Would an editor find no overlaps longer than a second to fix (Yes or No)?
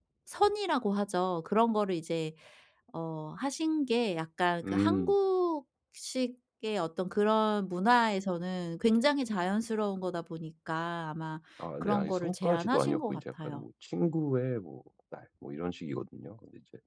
No